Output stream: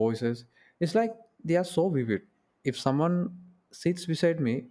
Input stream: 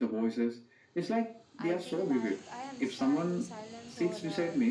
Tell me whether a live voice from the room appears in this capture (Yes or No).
Yes